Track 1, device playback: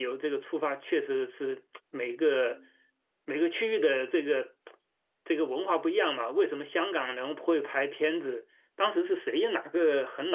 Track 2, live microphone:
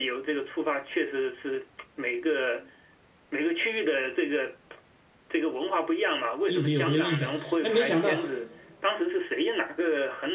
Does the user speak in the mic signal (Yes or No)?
Yes